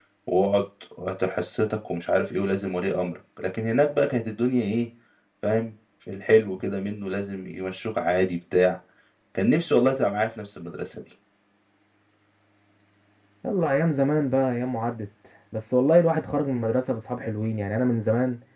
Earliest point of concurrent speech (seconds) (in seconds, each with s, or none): none